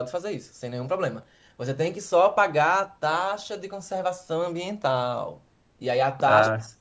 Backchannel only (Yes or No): Yes